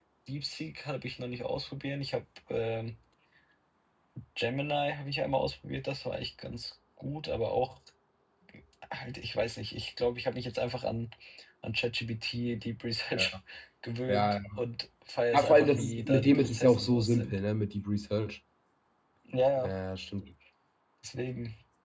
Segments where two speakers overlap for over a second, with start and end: 15.3-17.4

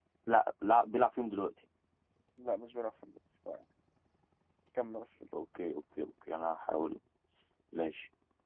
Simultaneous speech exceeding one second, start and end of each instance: none

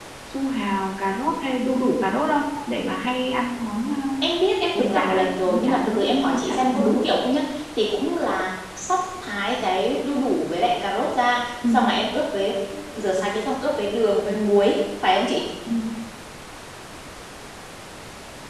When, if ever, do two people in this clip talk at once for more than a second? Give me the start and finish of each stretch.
4.8-7.0

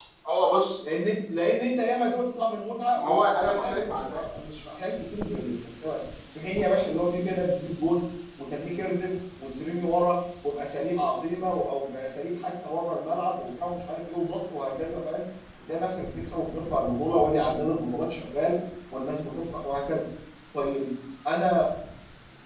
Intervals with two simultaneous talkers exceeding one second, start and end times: 3.0-4.2

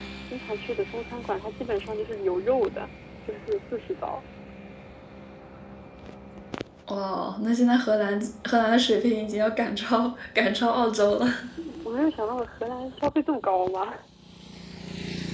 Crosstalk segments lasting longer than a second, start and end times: none

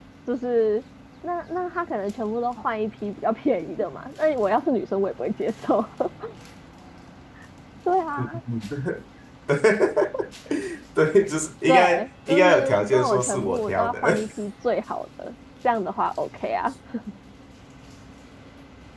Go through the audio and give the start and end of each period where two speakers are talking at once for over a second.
11.7-14.0

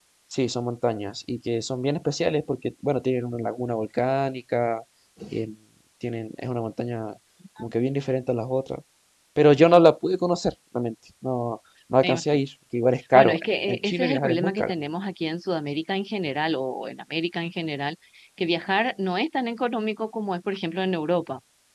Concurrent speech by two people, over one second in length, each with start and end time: 13.1-14.7

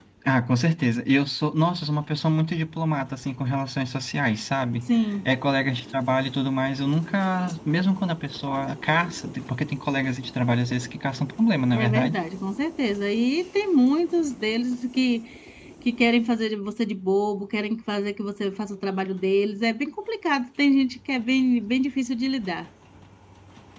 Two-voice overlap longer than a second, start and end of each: none

